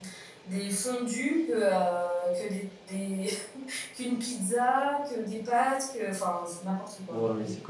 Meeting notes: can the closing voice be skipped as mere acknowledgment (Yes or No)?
No